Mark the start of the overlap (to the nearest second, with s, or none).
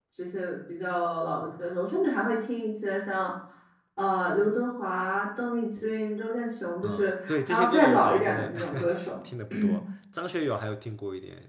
7 s